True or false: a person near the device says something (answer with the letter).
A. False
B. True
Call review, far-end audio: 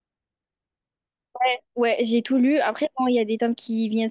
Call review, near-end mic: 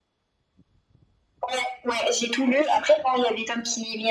A